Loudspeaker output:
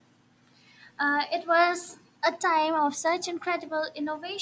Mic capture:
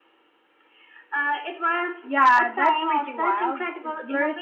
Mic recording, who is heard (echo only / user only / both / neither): both